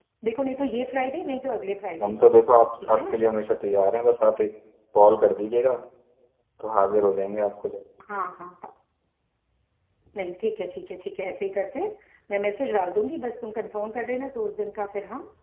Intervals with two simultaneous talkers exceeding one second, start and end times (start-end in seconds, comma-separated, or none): none